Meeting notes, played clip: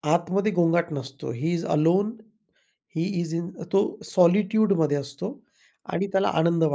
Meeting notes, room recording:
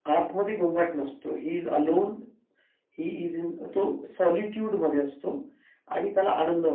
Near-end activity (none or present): none